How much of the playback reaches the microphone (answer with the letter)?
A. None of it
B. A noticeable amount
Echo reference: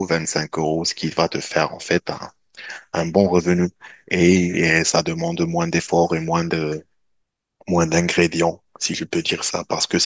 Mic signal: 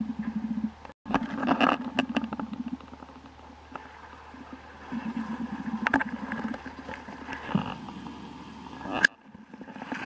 A